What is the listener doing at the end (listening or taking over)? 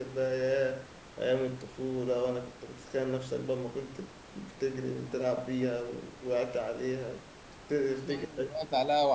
taking over